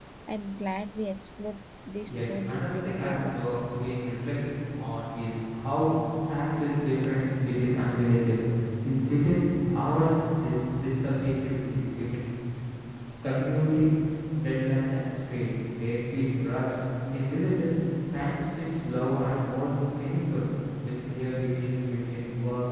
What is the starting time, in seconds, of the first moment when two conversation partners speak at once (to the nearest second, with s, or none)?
2 s